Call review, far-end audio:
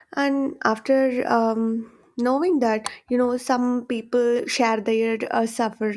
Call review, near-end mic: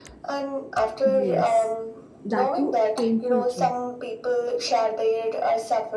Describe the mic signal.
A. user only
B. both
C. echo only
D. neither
B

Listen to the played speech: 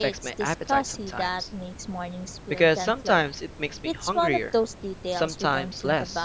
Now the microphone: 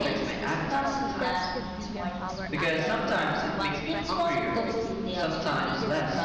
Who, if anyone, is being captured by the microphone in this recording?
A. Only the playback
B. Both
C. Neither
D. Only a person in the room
B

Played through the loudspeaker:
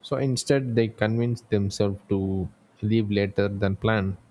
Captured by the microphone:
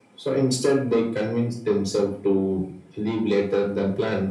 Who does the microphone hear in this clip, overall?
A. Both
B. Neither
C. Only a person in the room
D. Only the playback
D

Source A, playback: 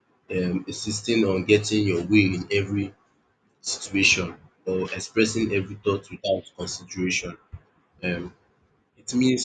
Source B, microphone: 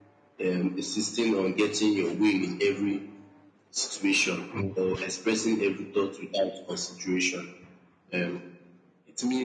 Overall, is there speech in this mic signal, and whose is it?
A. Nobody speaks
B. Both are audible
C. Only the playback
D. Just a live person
B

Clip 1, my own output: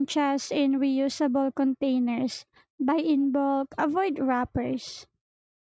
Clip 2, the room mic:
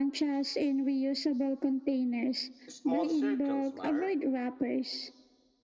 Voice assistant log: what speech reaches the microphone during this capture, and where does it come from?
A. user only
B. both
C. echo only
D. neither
B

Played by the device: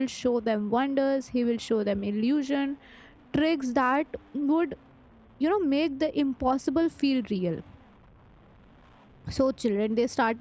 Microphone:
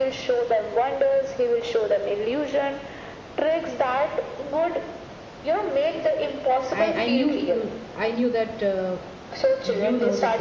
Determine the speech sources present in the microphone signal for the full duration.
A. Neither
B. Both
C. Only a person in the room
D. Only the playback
B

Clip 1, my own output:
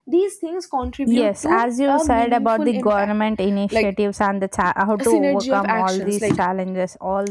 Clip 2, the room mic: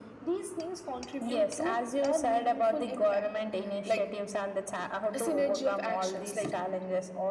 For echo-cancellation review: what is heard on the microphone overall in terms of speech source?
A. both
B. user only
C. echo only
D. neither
C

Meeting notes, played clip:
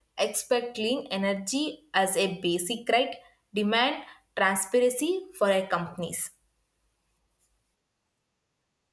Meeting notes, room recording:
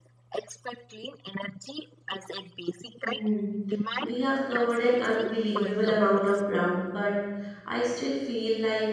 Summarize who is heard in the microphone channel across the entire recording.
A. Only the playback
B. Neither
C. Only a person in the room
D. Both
D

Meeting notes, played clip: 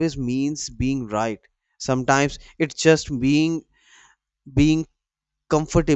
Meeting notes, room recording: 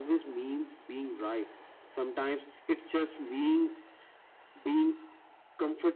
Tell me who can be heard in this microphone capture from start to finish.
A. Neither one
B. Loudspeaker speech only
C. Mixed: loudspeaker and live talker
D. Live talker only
B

